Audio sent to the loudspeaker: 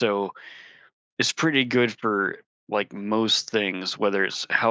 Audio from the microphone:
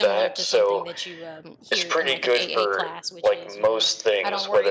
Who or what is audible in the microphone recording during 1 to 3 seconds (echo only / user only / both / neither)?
both